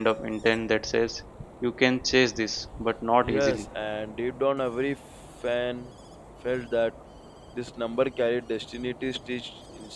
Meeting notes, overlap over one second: none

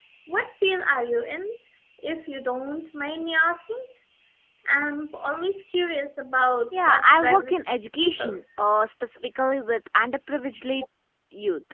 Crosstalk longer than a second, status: present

